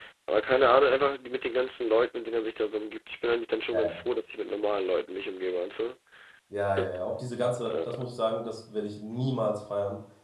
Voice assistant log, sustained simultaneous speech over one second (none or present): none